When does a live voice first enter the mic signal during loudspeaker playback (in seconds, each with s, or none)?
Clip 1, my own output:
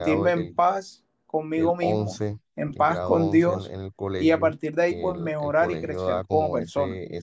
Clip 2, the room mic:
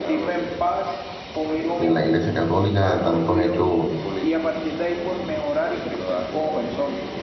1.7 s